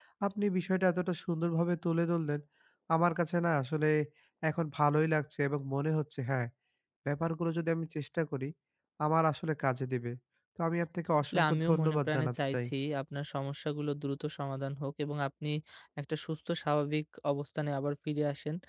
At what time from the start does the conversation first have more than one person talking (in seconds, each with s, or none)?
11.2 s